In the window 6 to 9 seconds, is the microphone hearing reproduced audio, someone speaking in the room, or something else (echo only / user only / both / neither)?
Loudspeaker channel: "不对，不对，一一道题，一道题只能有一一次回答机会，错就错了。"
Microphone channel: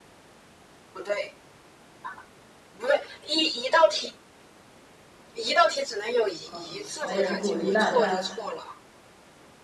both